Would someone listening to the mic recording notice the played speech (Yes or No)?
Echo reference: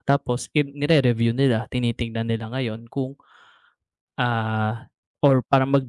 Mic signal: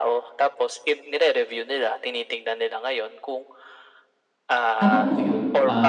Yes